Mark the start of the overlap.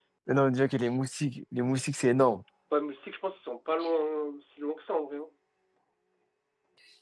none

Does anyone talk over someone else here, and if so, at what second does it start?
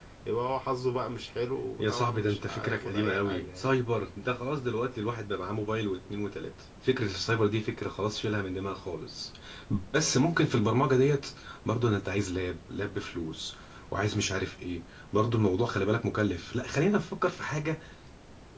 1.8 s

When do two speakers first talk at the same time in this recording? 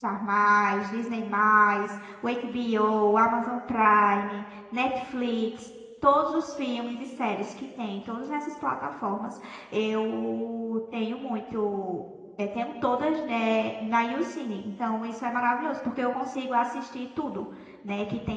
none

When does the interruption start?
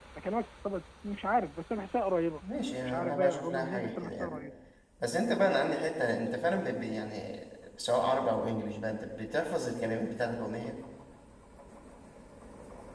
2.9 s

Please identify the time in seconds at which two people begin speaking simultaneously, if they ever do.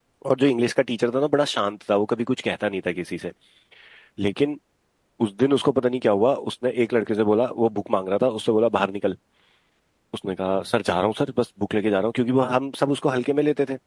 none

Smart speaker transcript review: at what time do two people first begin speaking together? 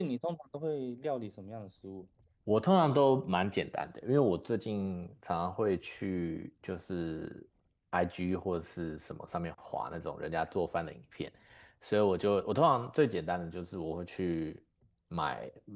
none

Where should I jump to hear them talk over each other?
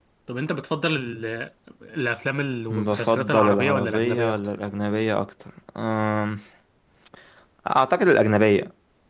2.7 s

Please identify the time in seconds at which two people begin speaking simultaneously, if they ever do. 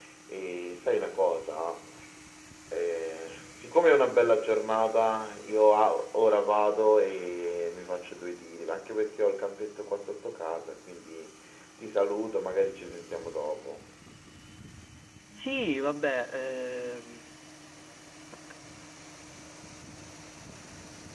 none

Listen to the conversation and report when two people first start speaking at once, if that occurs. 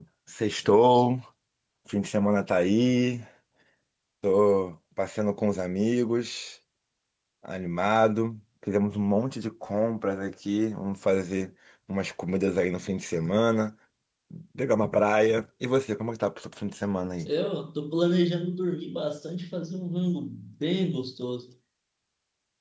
none

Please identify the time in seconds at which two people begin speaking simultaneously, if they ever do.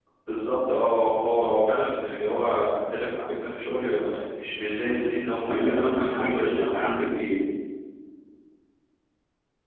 5.5 s

